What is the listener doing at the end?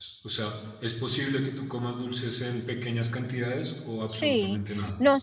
taking over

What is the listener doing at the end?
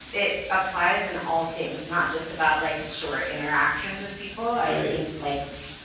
listening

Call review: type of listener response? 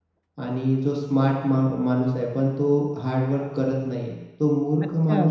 listening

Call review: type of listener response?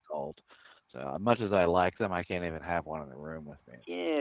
taking over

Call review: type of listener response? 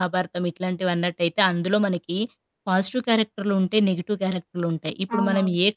listening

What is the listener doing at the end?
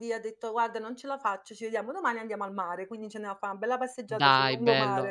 taking over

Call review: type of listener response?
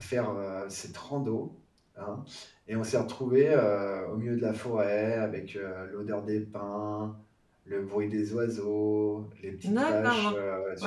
taking over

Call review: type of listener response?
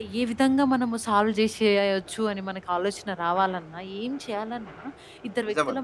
listening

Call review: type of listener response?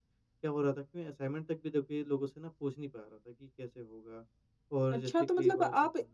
taking over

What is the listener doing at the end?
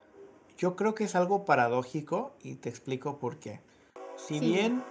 listening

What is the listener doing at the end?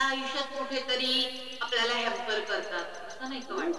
taking over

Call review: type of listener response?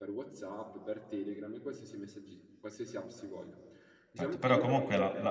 taking over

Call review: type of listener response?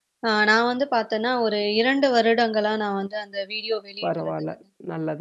taking over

